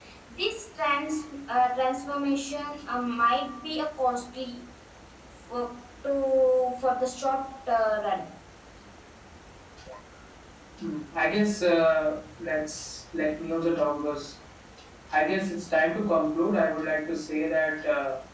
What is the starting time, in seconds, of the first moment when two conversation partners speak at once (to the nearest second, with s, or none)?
none